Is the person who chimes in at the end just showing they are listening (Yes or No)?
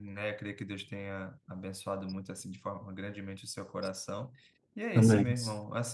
Yes